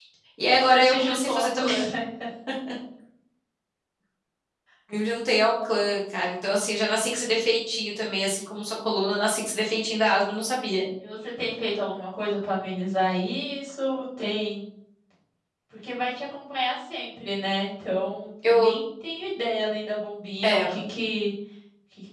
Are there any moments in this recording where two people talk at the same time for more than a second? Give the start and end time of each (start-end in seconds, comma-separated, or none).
0.5-1.7